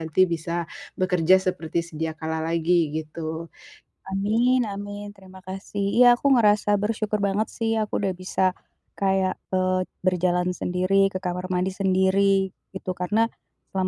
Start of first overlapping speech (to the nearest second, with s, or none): none